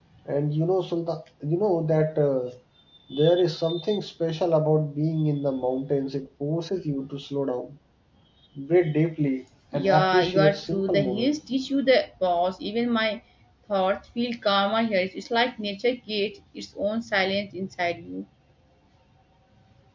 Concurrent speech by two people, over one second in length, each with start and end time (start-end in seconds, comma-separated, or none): 9.7-11.3